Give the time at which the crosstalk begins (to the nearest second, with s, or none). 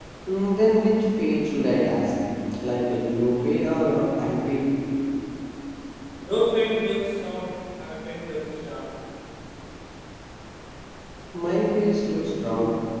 none